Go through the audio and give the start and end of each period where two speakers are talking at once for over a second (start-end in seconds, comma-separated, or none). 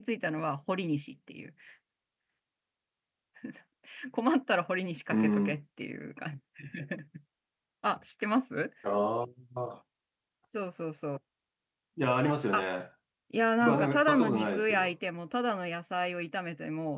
13.6-14.9